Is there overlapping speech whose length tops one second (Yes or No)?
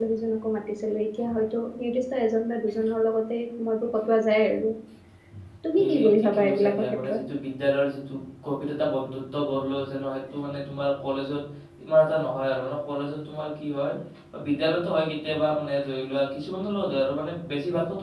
Yes